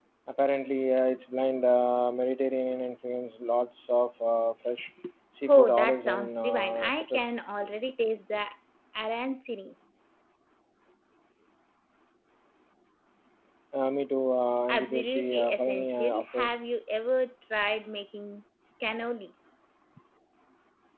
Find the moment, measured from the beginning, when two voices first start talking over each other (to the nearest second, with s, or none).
5 s